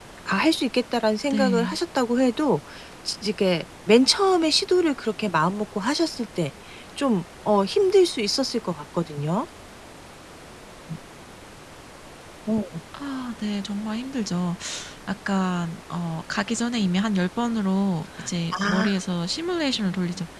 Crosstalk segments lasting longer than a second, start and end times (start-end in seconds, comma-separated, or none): none